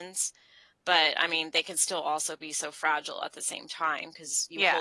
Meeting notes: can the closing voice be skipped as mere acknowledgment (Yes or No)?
Yes